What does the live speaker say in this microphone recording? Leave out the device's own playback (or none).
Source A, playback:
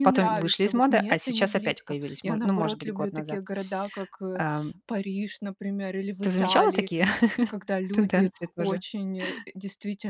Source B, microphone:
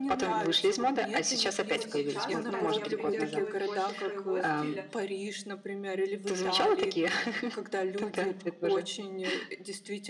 Вот сейчас, кстати, я придерживаюсь больше своего стиля